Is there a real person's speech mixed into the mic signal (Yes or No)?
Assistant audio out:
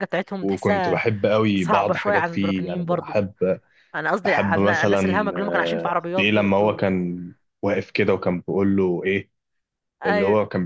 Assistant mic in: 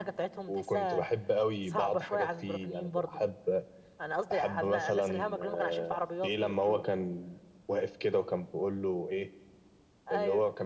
No